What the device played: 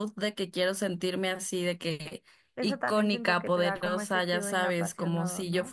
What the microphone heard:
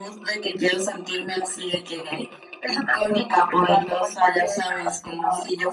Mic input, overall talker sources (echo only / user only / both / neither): echo only